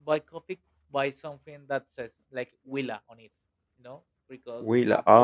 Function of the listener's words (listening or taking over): taking over